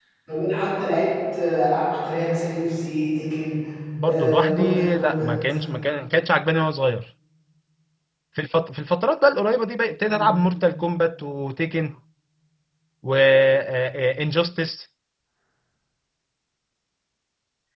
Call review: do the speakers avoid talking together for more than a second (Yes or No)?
No